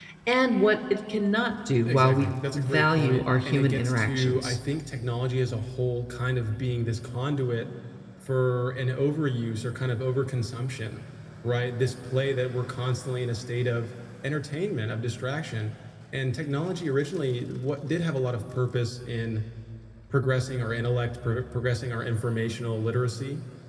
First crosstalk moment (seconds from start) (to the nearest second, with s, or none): 2 s